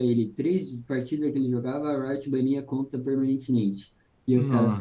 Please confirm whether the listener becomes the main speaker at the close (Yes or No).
No